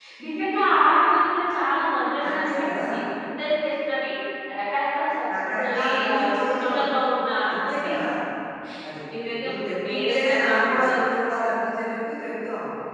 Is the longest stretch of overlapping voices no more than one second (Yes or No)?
No